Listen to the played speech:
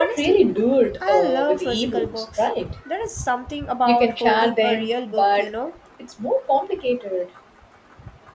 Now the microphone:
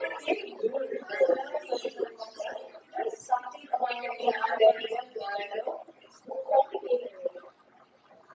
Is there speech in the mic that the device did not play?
No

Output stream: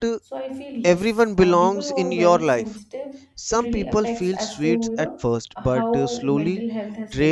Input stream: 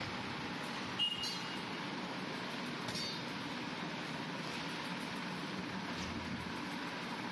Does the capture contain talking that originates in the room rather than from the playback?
No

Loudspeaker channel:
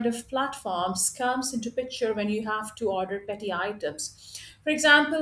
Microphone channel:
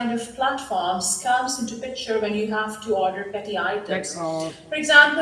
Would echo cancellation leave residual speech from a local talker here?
Yes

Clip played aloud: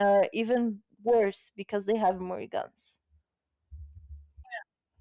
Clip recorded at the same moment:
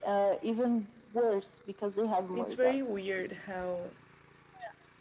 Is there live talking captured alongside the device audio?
Yes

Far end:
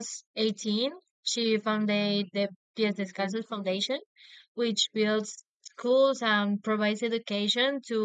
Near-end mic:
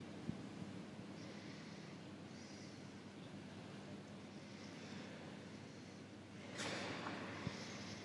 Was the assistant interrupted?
No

